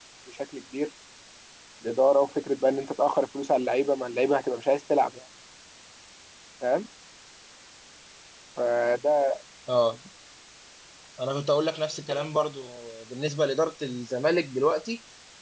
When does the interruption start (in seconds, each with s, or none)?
none